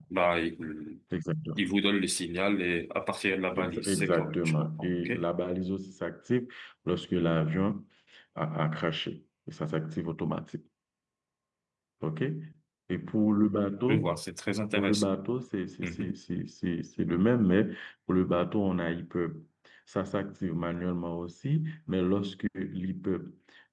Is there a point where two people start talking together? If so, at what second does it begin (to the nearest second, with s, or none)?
4 s